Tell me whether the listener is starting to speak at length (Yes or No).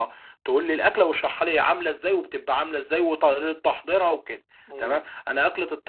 No